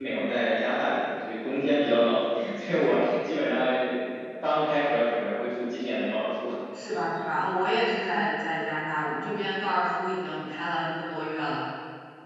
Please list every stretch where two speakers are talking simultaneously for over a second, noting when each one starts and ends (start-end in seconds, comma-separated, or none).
none